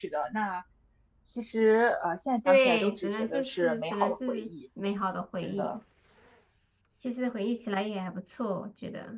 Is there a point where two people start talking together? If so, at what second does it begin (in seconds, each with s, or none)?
2.5 s